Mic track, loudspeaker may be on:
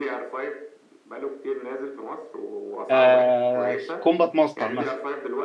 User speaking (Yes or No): Yes